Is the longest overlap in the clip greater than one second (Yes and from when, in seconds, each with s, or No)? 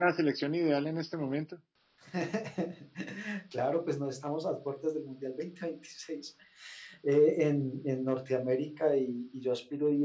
No